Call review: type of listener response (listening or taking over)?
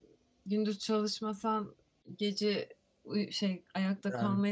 listening